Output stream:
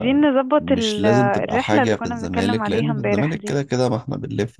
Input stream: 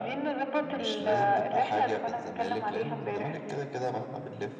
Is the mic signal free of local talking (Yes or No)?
Yes